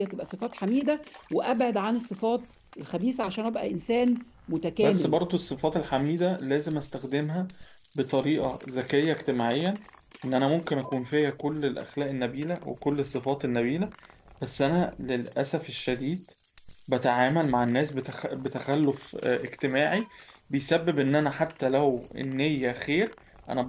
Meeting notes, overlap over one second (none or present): none